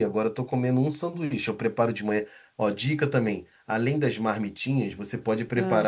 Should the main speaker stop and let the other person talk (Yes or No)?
No